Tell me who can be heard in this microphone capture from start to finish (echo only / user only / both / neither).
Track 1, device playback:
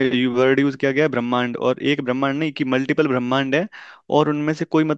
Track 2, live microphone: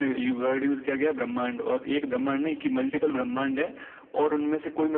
echo only